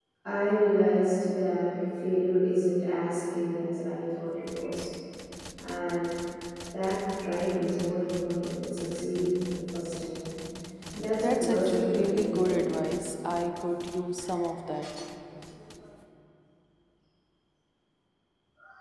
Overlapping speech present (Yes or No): Yes